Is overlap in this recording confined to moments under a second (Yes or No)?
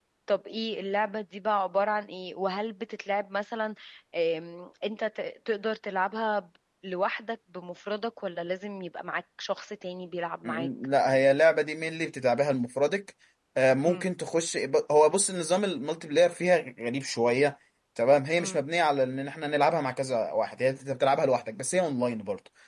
Yes